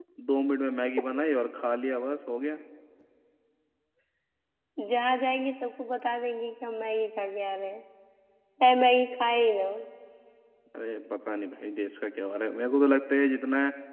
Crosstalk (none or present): none